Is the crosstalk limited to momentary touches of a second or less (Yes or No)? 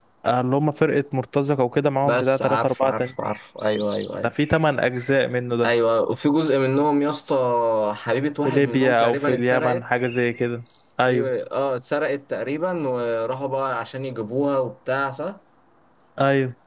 No